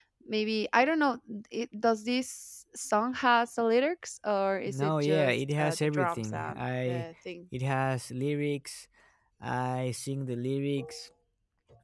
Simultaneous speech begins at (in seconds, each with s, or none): 4.7 s